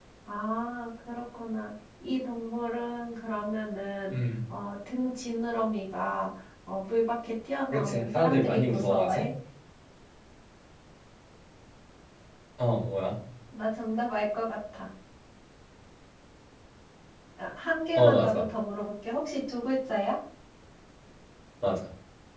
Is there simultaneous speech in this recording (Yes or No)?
Yes